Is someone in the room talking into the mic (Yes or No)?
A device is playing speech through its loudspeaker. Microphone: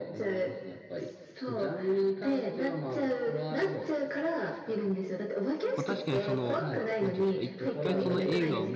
Yes